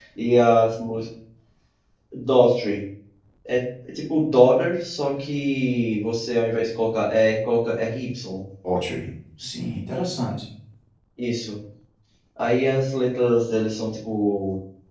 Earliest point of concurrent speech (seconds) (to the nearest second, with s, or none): none